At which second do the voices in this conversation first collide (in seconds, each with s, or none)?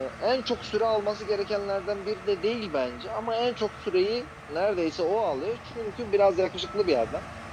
none